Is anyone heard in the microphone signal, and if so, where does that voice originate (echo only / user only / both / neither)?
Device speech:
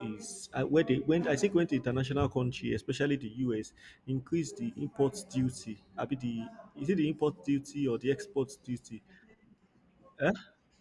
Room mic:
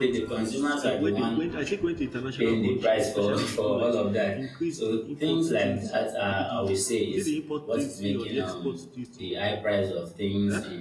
both